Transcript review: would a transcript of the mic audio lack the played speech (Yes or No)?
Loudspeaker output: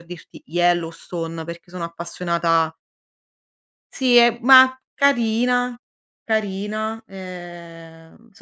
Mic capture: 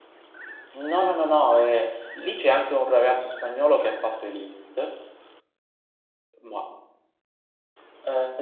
Yes